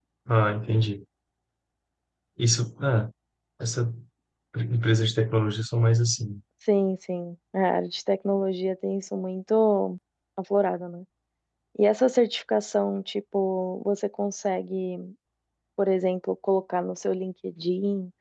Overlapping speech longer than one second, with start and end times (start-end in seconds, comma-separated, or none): none